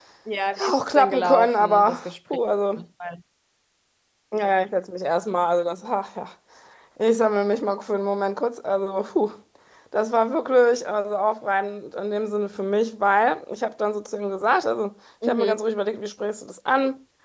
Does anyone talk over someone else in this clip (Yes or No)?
Yes